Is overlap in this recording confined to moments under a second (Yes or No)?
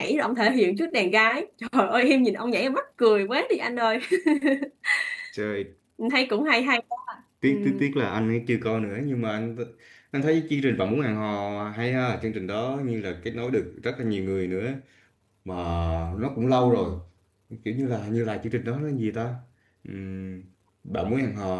Yes